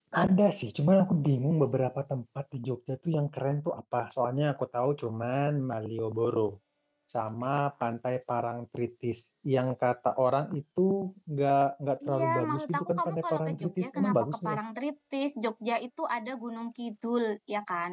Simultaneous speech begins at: 12.1 s

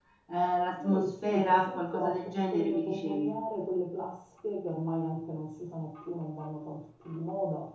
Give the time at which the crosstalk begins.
0.8 s

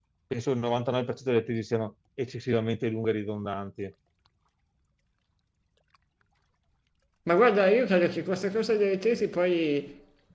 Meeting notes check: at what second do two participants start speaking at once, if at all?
none

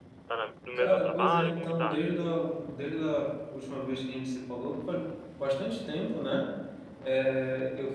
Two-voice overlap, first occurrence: 0.8 s

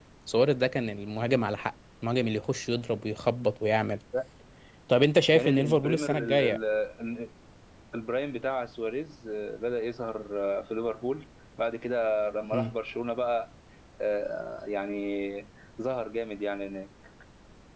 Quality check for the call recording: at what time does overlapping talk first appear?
5.3 s

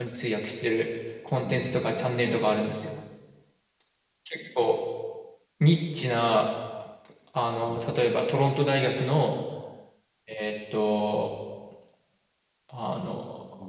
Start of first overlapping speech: 1.4 s

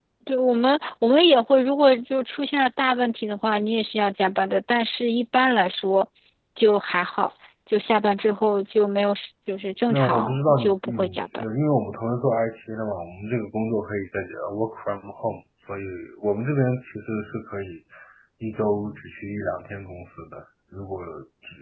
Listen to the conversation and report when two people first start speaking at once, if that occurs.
9.9 s

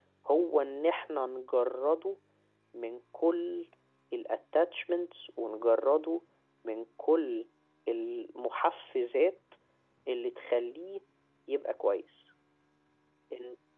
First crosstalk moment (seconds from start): none

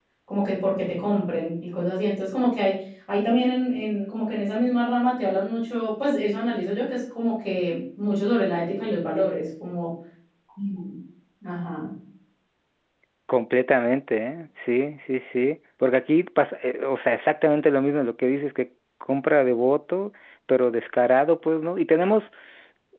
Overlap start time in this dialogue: none

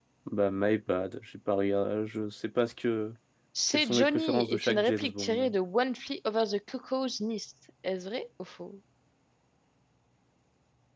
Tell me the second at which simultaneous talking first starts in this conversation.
3.7 s

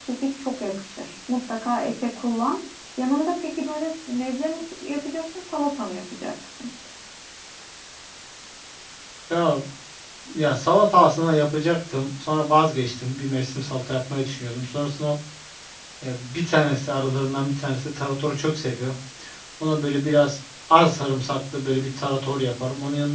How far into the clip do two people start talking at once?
none

